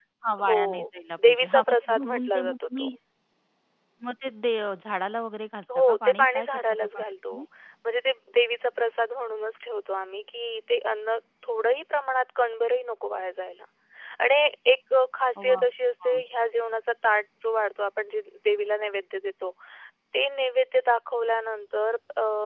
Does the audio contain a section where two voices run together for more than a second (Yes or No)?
Yes